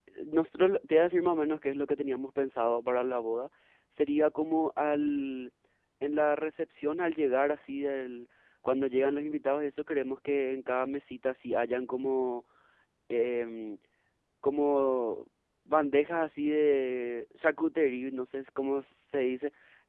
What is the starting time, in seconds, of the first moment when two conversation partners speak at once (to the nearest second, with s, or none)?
none